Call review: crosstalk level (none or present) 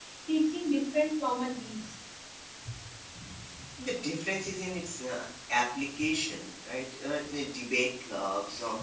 none